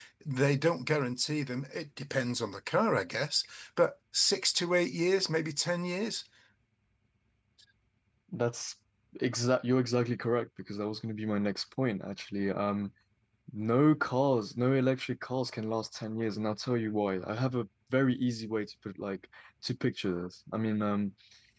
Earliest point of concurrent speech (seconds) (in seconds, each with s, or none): none